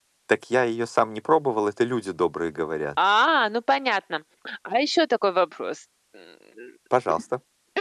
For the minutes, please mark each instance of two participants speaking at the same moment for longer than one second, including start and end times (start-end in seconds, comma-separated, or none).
none